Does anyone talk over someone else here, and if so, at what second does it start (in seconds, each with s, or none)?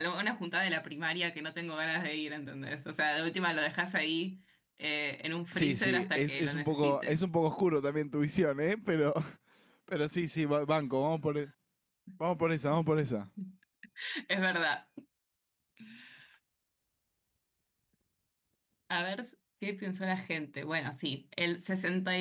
5.5 s